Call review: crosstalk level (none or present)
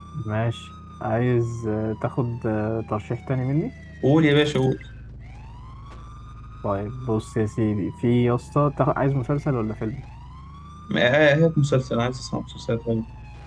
none